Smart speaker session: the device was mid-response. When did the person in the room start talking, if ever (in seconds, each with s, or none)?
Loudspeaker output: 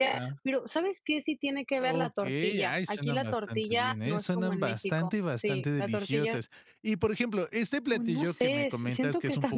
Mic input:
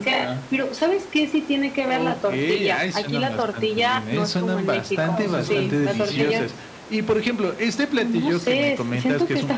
4.9 s